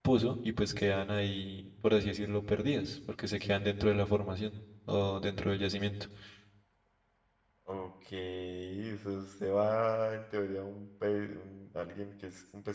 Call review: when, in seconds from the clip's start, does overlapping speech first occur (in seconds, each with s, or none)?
none